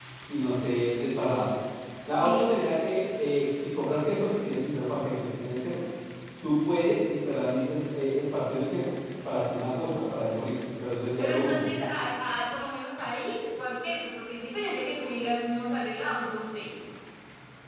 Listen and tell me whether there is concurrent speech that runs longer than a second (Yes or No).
No